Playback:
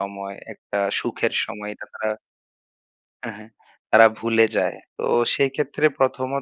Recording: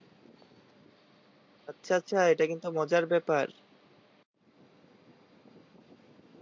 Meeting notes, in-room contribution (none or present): present